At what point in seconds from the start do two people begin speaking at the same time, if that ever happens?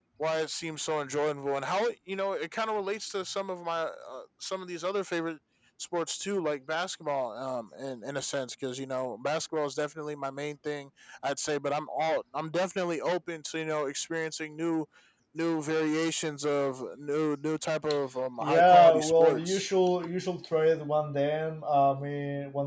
18.4 s

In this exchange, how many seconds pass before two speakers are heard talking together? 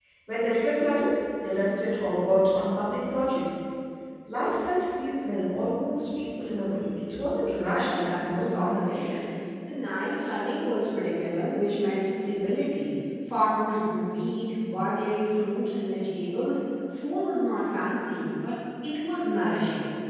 7.6 s

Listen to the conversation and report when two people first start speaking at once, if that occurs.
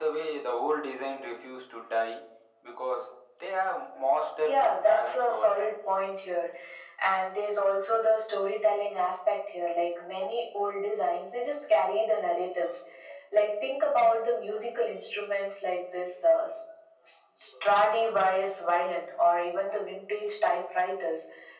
4.4 s

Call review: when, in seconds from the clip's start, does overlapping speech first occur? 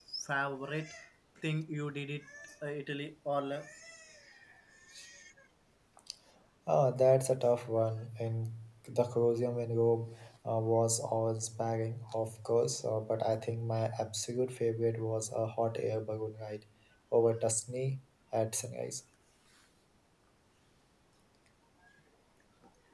none

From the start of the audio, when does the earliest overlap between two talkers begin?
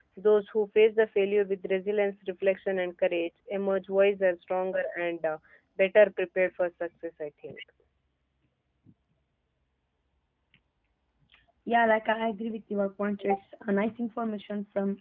none

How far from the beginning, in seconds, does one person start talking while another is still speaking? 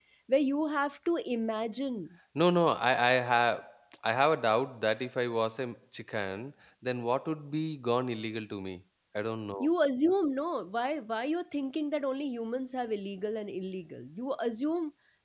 none

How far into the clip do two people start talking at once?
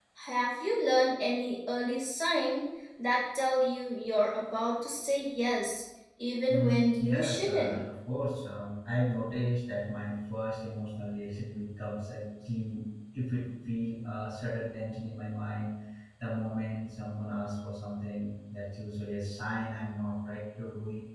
6.5 s

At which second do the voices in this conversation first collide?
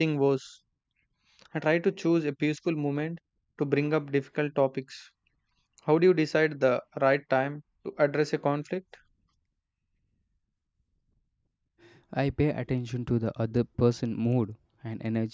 none

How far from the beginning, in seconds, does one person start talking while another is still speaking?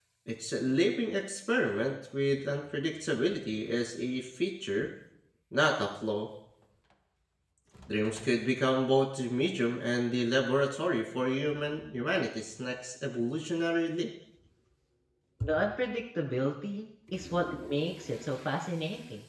none

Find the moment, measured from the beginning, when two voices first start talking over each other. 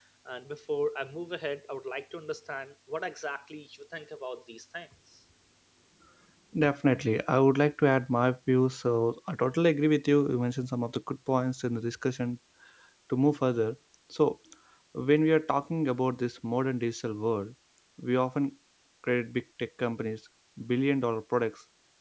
none

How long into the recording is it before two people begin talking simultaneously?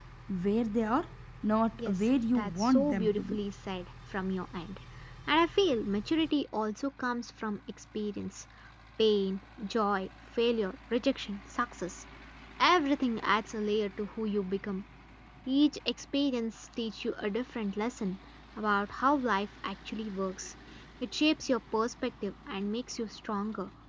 1.8 s

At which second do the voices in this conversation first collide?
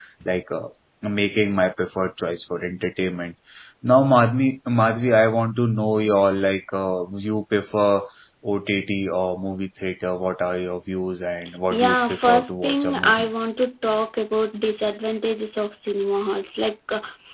11.7 s

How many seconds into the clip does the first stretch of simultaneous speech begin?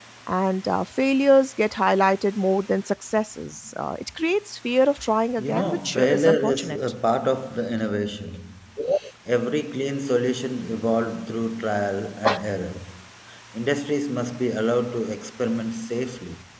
5.4 s

